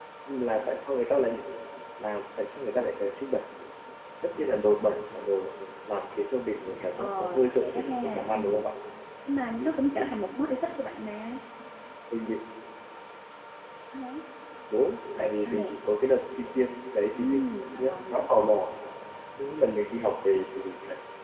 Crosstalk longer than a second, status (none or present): present